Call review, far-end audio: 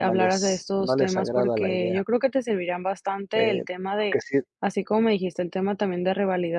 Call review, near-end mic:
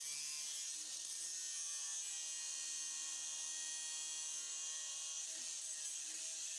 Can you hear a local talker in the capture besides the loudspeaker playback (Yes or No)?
No